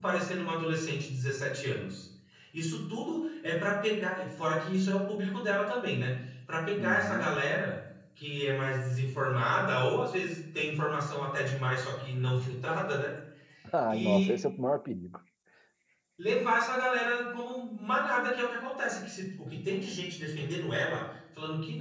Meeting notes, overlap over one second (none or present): none